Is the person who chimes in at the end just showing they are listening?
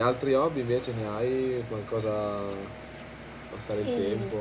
No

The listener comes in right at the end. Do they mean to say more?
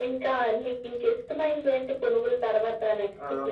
Yes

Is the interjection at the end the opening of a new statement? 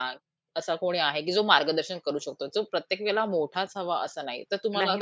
Yes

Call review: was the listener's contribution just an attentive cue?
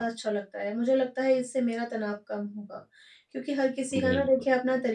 Yes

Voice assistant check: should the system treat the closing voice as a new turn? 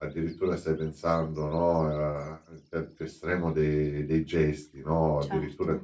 No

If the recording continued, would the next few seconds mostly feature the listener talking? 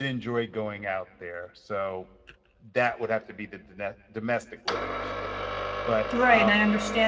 Yes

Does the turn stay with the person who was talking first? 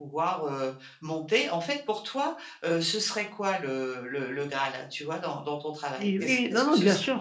No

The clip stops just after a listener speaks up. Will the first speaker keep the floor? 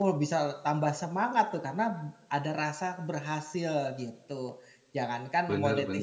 Yes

